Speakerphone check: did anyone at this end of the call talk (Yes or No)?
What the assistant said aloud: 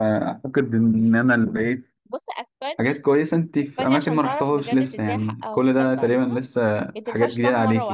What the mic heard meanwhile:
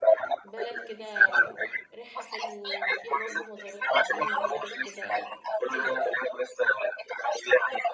Yes